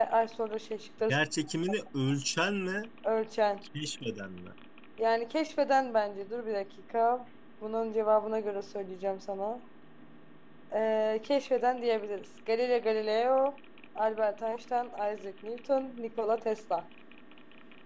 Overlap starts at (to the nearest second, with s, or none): none